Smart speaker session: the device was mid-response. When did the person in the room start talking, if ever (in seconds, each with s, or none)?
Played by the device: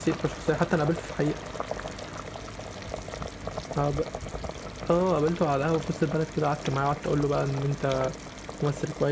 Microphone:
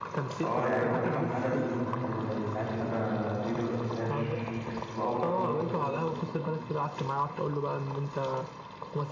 0.4 s